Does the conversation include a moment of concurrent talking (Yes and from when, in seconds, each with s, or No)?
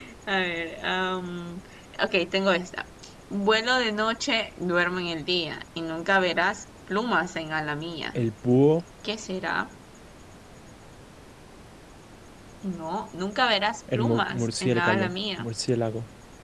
Yes, from 13.9 s